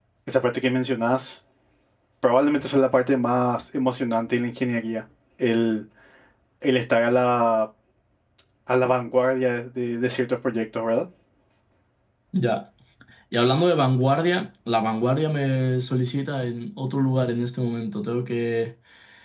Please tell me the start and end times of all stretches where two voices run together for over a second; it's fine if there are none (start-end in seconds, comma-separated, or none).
none